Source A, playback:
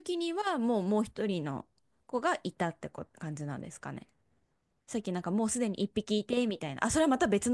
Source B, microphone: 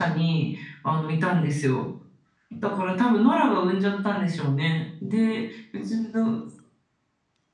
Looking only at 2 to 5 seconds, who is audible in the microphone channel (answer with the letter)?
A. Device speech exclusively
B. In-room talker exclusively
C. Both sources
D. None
B